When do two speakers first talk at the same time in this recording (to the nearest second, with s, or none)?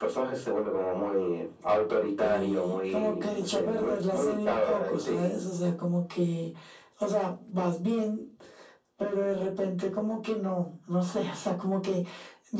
2 s